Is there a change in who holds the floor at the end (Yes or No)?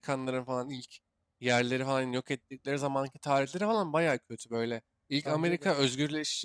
No